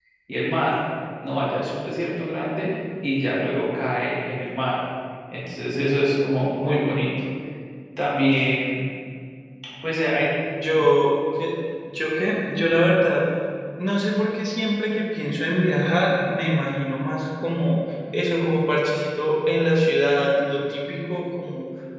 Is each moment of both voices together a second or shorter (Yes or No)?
Yes